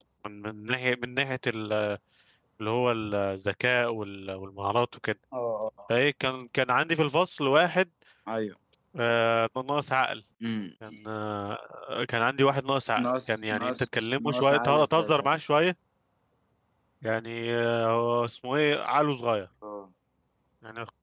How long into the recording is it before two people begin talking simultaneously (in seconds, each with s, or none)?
13.0 s